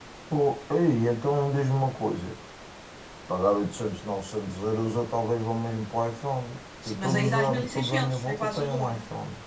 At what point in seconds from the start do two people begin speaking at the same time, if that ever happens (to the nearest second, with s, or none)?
7 s